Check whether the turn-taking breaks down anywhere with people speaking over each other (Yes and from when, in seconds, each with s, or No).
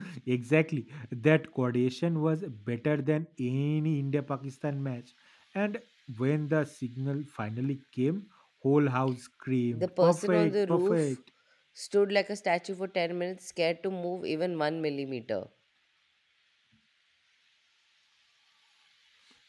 Yes, from 9.7 s